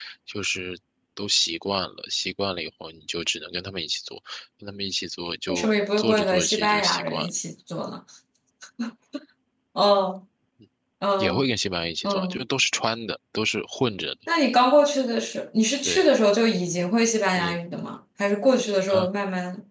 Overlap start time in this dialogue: 5.5 s

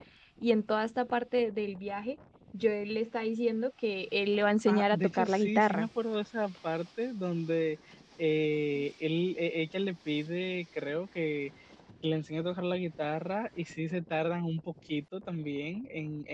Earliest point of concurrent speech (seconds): 4.7 s

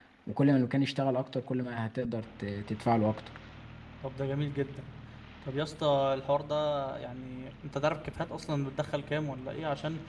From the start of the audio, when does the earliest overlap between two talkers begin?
none

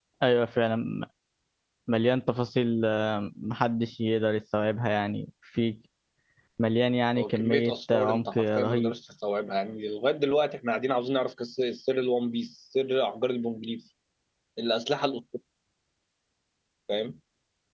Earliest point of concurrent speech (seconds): 7.2 s

